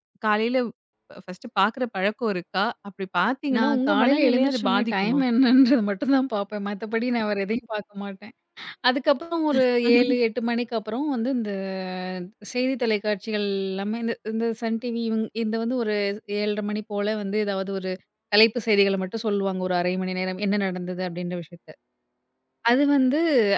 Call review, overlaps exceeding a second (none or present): present